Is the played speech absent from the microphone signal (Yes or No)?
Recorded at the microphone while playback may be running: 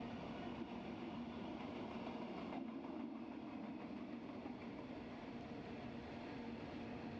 Yes